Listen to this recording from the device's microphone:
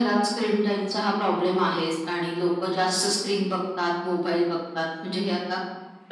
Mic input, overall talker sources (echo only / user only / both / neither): echo only